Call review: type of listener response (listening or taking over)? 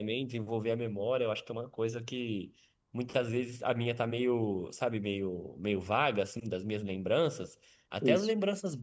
listening